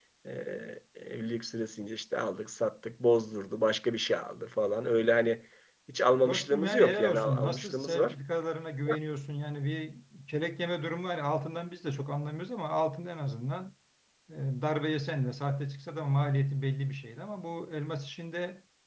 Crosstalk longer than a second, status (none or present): present